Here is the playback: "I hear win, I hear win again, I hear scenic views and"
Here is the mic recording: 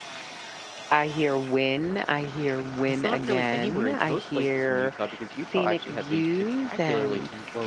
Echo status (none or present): present